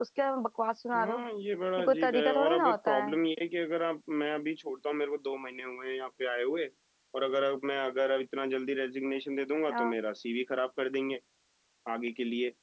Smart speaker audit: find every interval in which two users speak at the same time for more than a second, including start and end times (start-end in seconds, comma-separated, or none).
1.8-3.2